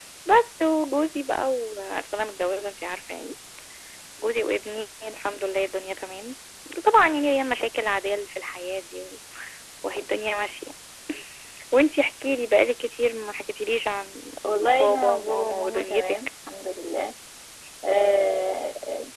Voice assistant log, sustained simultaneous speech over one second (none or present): present